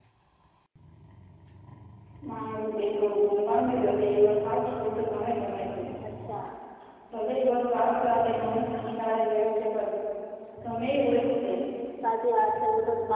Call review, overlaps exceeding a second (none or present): none